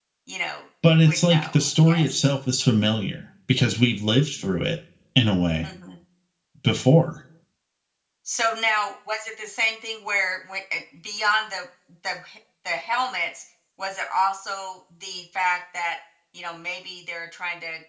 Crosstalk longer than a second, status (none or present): present